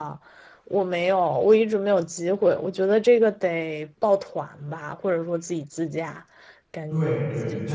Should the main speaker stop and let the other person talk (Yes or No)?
Yes